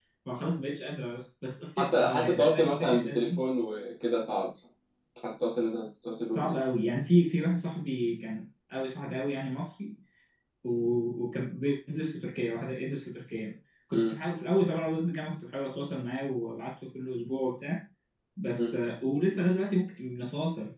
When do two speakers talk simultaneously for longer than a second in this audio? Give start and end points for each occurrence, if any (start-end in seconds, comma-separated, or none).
1.8-3.4